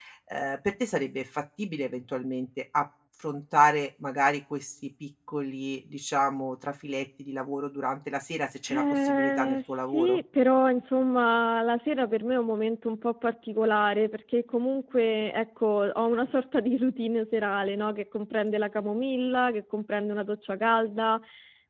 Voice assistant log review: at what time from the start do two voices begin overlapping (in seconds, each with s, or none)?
8.7 s